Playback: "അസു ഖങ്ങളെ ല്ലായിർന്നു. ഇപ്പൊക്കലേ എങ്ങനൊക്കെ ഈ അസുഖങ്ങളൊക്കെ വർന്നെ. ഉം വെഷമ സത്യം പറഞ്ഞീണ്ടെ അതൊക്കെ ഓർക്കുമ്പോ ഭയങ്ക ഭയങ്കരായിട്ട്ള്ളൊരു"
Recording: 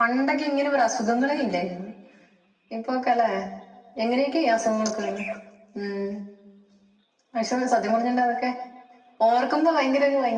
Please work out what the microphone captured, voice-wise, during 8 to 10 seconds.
echo only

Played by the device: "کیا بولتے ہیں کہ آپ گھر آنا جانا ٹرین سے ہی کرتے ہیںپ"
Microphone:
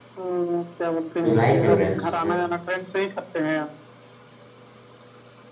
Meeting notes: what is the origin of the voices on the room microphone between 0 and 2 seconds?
both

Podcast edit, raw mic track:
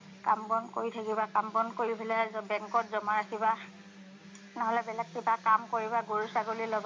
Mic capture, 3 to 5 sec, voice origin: echo only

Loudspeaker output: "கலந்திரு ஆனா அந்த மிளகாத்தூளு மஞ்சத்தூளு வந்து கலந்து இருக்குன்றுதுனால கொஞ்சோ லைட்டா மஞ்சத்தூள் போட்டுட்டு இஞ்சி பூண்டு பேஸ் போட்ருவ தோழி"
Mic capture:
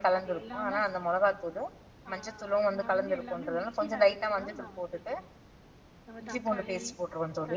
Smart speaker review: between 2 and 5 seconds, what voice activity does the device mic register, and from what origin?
both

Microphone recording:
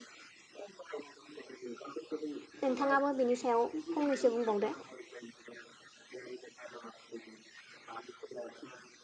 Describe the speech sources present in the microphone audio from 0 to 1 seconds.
echo only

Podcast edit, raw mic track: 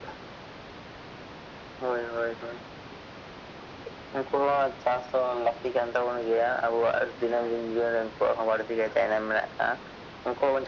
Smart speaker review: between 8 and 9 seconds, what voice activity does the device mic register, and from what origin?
echo only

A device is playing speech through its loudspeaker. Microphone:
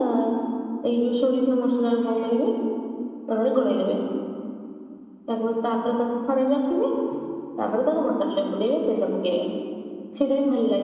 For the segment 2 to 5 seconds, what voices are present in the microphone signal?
echo only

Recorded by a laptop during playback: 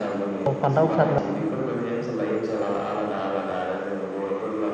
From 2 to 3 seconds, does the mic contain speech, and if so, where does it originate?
echo only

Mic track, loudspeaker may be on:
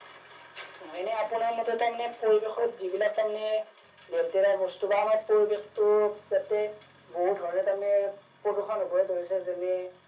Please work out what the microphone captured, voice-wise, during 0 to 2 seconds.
echo only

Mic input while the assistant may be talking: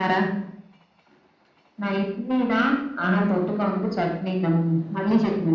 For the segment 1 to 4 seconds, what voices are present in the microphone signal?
echo only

